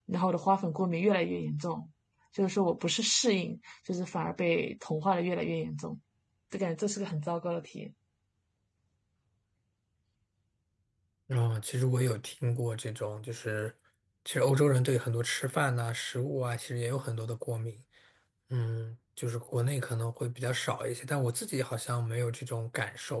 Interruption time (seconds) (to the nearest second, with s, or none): none